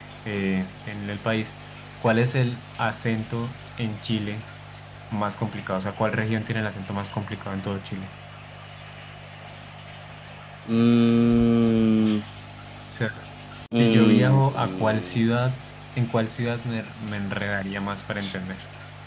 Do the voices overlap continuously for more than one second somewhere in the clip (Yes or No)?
Yes